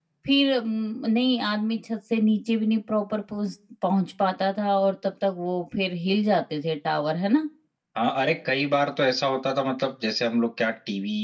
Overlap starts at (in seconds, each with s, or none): none